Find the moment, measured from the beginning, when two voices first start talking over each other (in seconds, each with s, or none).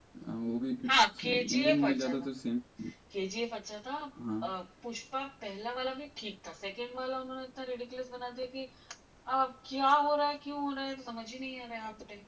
0.9 s